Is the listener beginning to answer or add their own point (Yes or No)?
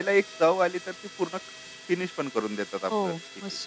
Yes